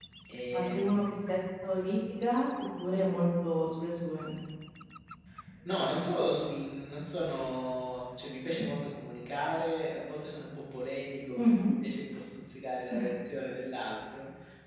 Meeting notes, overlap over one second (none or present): none